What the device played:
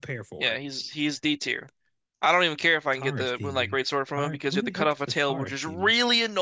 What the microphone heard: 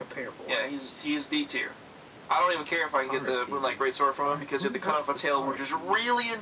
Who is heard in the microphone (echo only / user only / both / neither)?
echo only